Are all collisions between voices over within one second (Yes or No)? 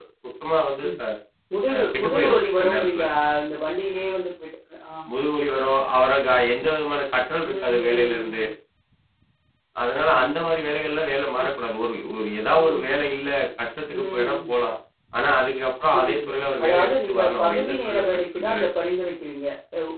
No